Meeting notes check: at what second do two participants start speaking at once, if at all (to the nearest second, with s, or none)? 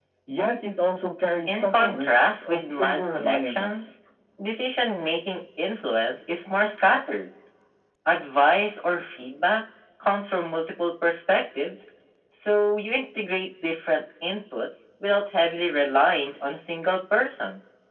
1 s